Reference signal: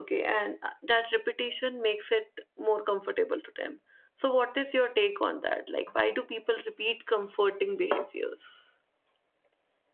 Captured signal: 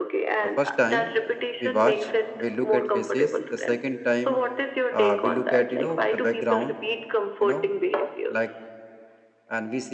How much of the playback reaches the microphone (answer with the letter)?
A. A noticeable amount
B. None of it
A